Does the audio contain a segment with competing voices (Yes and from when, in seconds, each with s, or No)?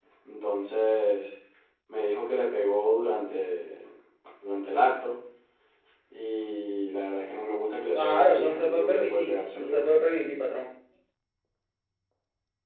Yes, from 8.0 s